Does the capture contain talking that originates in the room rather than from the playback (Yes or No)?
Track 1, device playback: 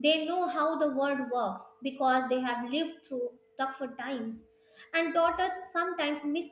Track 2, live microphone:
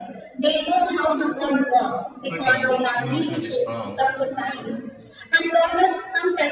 Yes